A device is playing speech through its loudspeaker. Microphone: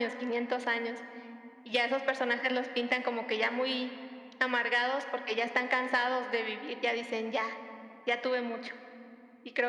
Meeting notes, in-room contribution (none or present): none